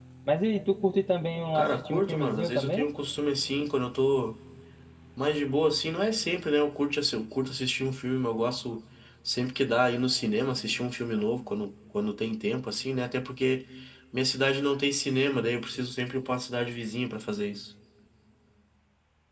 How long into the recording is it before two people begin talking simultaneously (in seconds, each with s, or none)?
1.6 s